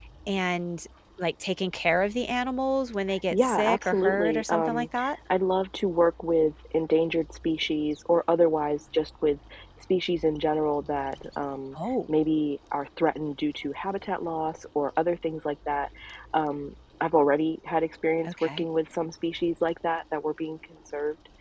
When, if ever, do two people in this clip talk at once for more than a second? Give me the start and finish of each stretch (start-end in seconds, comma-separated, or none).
3.3-4.9